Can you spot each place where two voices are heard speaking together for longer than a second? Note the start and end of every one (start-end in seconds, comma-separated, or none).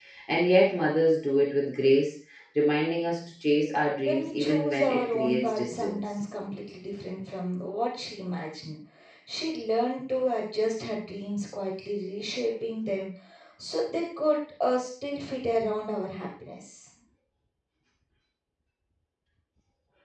4.0-6.2